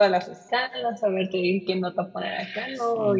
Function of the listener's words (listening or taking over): listening